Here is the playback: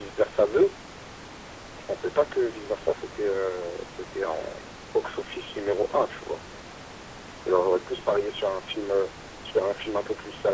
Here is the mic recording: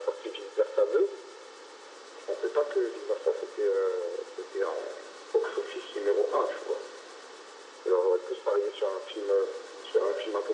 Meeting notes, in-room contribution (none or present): none